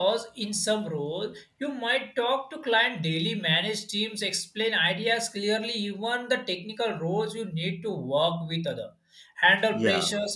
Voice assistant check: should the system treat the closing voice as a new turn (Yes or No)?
No